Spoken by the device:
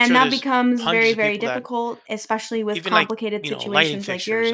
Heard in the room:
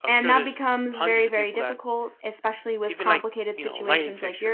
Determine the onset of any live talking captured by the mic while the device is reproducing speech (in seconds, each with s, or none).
none